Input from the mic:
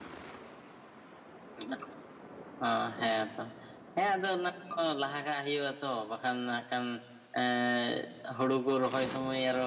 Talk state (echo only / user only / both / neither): user only